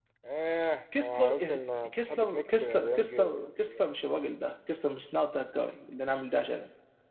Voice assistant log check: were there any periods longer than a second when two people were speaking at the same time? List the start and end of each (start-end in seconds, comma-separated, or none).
1.0-3.8